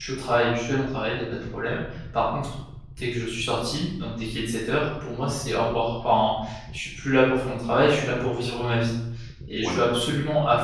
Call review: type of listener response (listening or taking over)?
listening